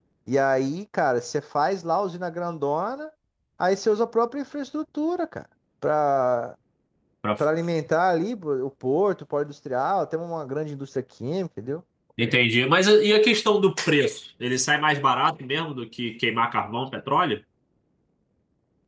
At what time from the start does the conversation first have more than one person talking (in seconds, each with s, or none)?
none